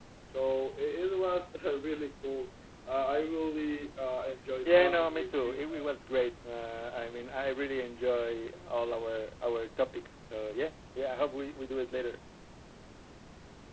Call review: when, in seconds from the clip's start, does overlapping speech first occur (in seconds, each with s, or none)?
4.7 s